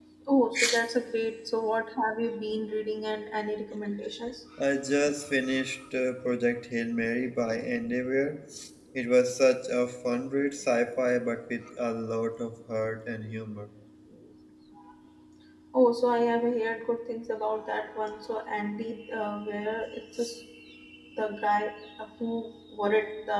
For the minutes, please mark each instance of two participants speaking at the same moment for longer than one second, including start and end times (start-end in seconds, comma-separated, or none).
none